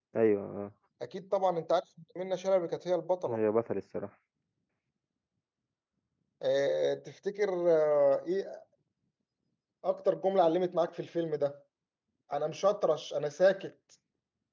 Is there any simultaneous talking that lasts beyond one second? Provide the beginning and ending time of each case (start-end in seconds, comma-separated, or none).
none